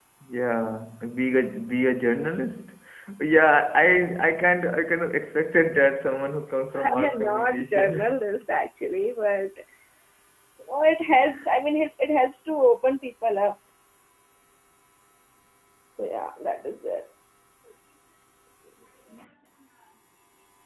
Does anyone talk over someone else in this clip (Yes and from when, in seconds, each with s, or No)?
Yes, from 7.0 s